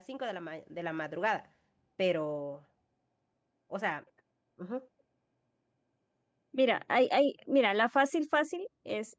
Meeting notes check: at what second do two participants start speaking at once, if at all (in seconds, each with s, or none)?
none